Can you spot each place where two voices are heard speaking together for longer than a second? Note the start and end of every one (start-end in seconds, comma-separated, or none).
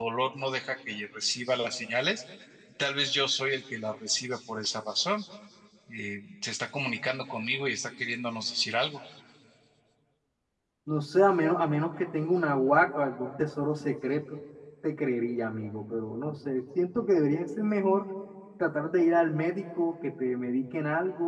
none